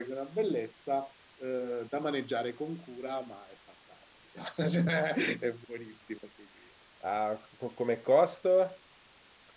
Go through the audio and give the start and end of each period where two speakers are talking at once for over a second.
none

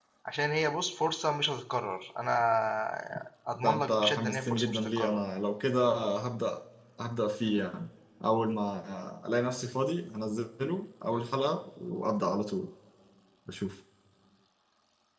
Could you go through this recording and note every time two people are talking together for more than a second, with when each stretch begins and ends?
3.6-5.2

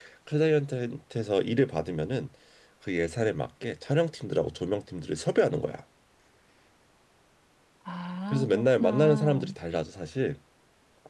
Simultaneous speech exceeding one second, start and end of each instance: 8.3-9.5

